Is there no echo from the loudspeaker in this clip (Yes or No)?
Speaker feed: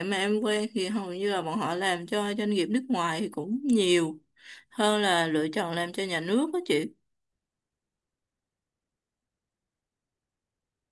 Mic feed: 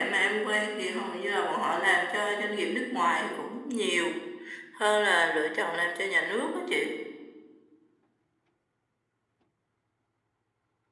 No